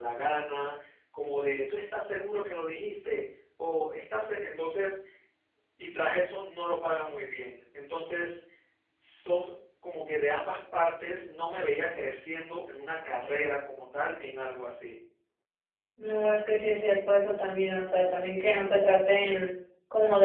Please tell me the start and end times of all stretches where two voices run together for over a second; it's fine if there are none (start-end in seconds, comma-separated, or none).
none